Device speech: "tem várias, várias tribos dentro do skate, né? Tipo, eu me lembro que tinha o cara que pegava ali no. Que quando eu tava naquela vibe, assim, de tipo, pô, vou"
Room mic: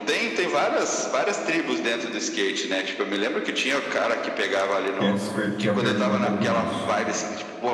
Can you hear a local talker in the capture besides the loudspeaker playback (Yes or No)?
Yes